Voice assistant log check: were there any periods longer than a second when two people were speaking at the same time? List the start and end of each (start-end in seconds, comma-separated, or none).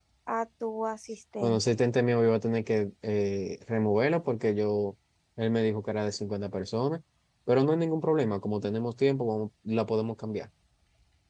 none